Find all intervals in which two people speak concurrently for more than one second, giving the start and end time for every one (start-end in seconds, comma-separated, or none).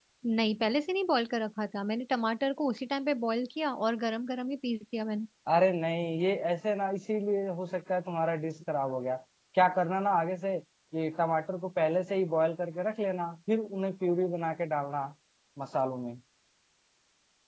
none